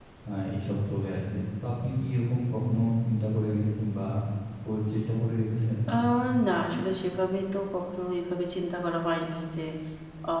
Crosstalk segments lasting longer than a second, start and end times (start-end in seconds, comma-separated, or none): none